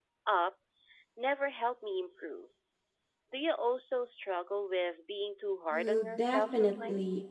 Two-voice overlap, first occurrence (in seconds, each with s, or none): 5.7 s